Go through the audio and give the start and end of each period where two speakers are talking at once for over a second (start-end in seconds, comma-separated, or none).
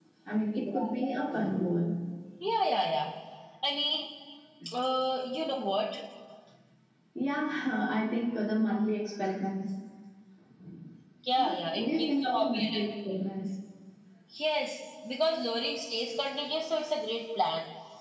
11.4-12.8